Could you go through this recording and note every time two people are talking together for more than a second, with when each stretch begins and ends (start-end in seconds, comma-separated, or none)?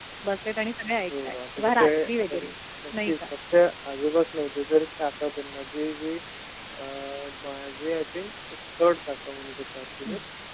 1.1-2.4